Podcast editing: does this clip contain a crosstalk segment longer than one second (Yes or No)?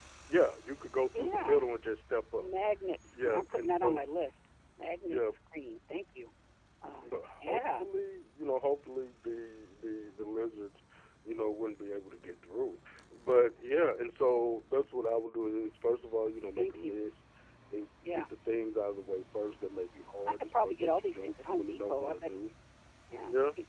Yes